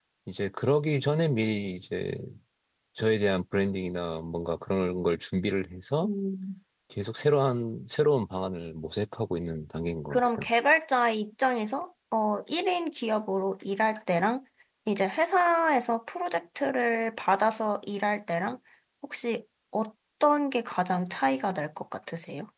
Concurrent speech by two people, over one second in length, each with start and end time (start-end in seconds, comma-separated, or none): none